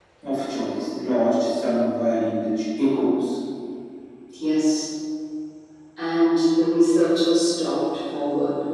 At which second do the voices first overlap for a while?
none

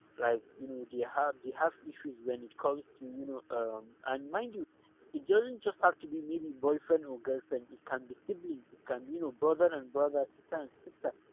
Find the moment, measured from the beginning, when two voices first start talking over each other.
none

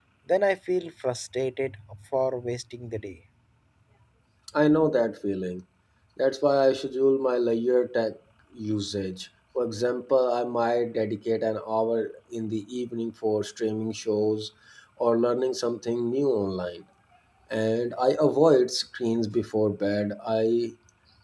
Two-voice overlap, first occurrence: none

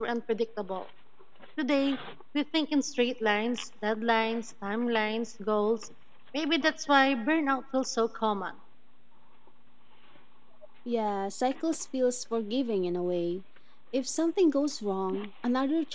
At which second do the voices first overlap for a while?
none

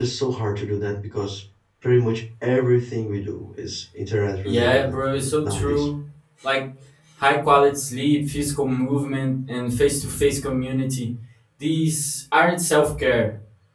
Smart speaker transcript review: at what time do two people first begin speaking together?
4.4 s

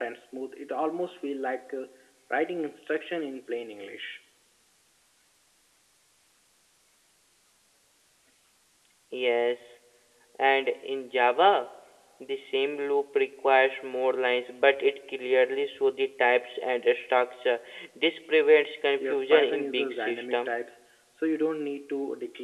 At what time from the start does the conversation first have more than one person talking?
19.0 s

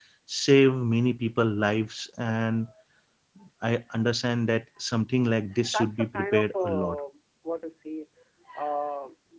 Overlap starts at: 5.6 s

